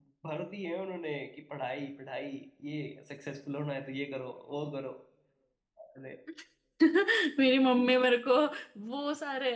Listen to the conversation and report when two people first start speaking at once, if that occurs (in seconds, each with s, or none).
none